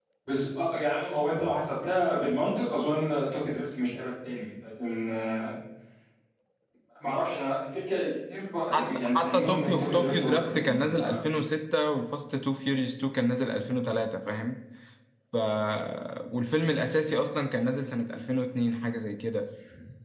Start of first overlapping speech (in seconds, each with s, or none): 8.7 s